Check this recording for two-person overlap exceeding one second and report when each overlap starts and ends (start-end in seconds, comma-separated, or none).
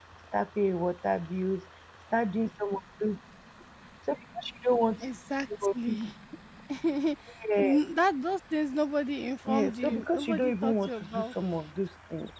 9.5-11.3